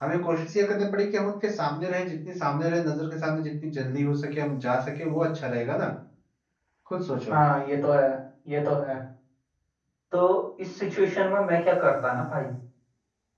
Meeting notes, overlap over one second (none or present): none